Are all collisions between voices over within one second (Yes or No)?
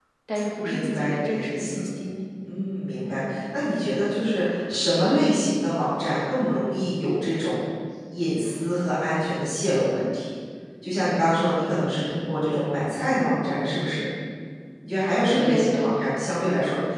No